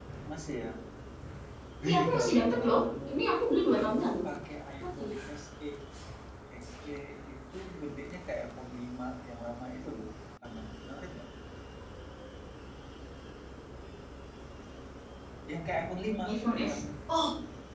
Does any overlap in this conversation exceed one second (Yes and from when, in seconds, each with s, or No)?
Yes, from 1.9 s